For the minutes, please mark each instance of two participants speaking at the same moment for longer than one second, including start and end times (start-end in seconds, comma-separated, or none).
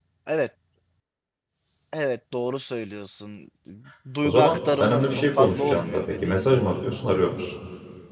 4.2-6.8